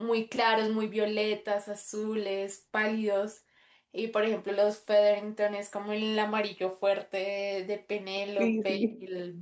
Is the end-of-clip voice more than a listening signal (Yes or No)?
No